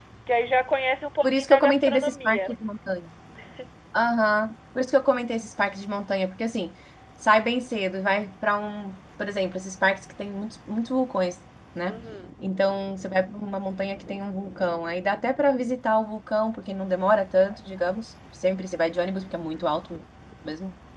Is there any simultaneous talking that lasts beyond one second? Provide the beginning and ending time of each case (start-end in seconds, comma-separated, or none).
1.2-2.5